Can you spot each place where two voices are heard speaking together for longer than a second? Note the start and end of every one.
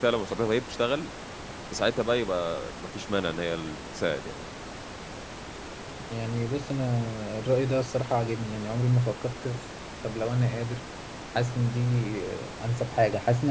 none

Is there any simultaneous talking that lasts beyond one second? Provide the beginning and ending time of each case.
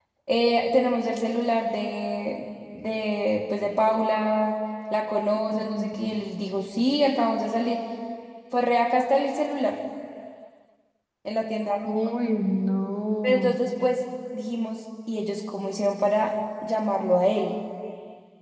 none

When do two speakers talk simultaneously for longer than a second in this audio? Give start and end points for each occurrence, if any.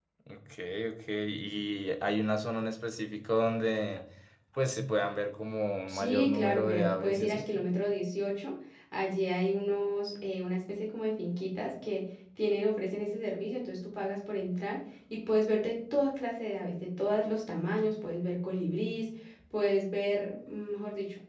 5.9-7.5

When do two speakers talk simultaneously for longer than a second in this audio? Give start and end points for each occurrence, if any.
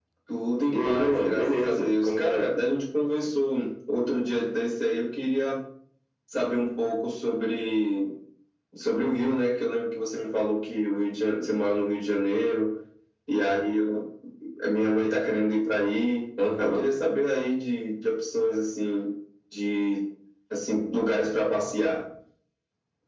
0.7-2.5

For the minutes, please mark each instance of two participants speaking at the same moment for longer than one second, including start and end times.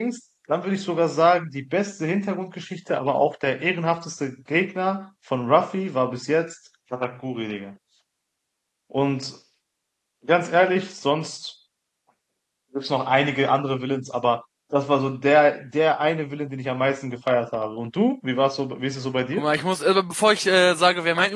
none

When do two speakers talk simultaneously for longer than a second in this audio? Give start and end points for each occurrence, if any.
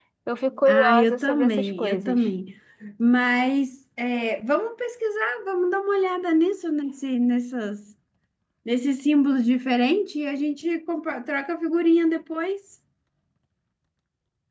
0.7-2.2

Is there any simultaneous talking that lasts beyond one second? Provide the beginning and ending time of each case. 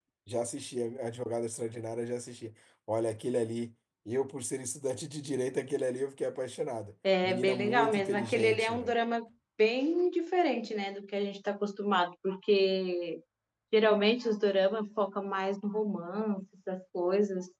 7.2-8.7

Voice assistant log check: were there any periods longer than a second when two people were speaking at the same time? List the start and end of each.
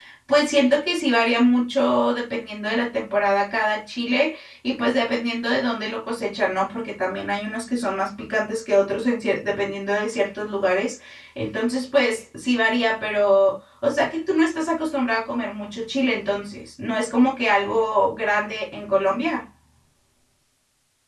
none

